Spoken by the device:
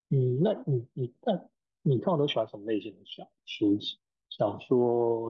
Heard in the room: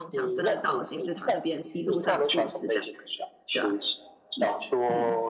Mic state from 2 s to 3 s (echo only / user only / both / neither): both